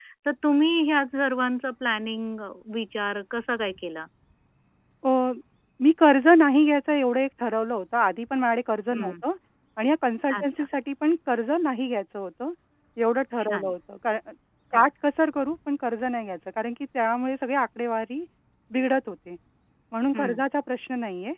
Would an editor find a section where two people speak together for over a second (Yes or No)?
No